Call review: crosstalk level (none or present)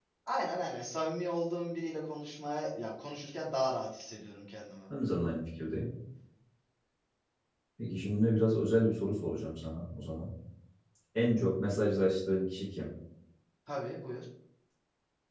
none